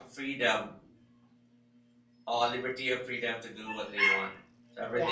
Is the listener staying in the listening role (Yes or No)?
No